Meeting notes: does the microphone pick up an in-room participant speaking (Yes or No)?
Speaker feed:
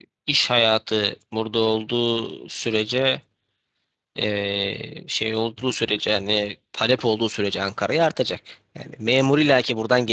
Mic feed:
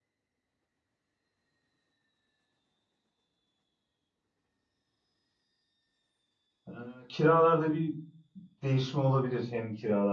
Yes